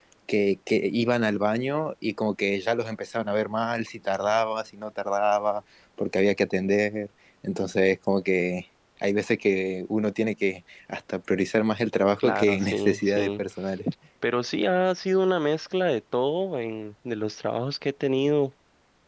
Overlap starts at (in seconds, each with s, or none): 12.2 s